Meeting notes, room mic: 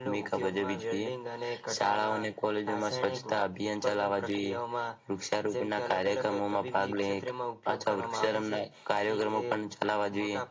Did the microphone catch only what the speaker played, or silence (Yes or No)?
Yes